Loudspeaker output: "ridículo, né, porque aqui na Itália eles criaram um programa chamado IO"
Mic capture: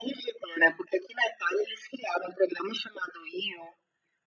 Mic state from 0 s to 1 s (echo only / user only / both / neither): echo only